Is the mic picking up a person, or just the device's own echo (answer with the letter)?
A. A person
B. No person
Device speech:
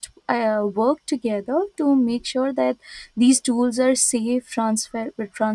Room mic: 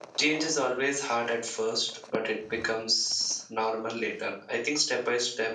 A